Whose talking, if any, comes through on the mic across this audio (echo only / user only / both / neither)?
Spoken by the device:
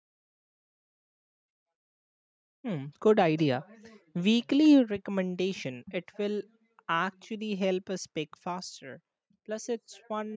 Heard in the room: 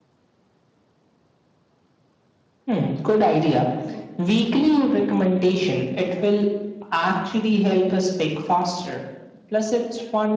echo only